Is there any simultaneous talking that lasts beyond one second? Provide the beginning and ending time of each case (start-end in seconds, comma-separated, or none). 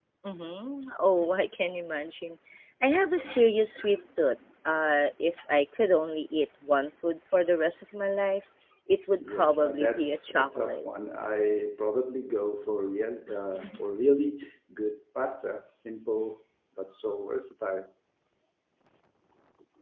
9.3-10.8